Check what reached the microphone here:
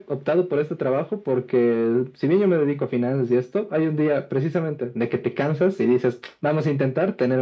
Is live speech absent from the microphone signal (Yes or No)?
Yes